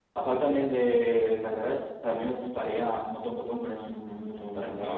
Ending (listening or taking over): taking over